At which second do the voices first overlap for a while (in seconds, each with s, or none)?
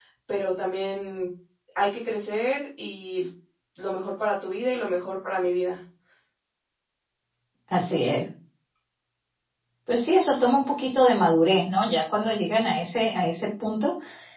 none